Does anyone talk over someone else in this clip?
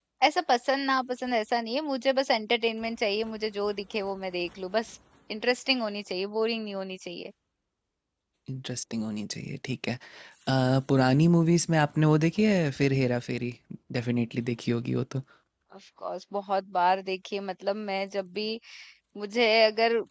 No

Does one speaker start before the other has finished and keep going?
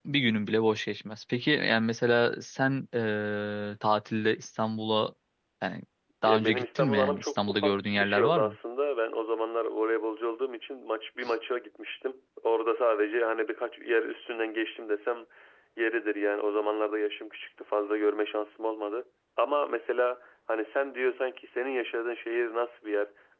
Yes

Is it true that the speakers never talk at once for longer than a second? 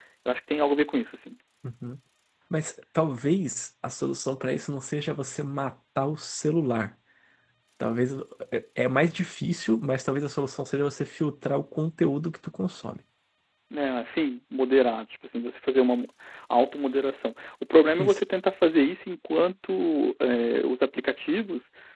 Yes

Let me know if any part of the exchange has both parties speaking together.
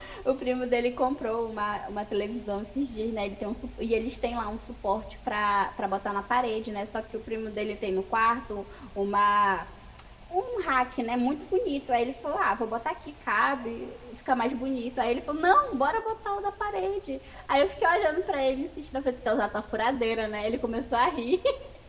No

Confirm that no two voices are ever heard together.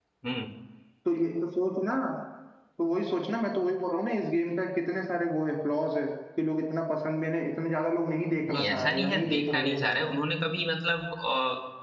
No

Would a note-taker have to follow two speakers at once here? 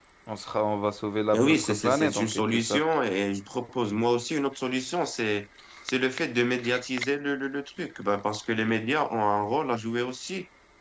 Yes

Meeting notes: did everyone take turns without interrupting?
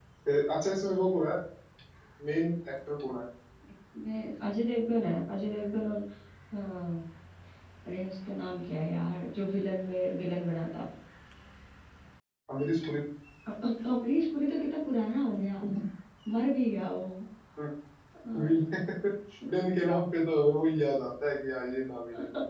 Yes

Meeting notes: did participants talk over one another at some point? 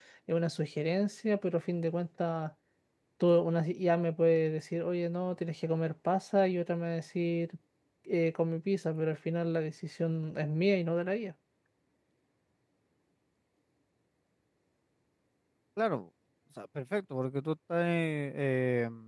No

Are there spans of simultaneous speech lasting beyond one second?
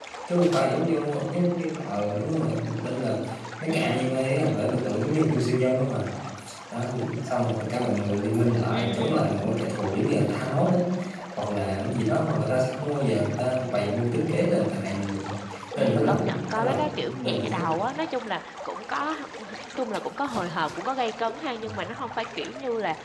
Yes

